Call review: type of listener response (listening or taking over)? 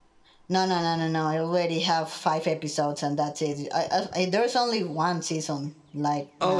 taking over